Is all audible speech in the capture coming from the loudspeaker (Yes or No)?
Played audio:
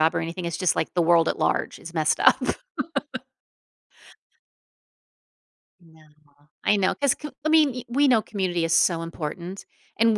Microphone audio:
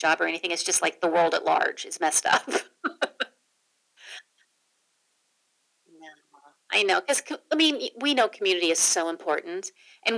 Yes